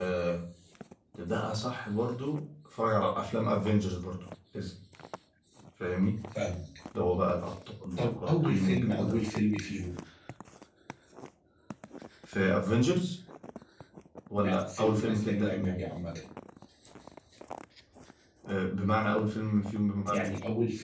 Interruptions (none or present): present